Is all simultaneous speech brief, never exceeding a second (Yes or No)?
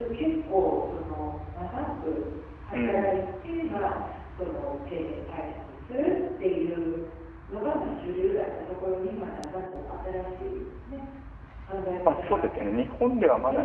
Yes